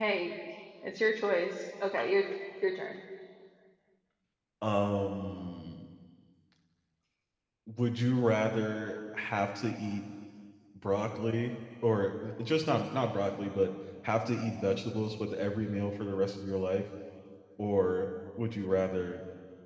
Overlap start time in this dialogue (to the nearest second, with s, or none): none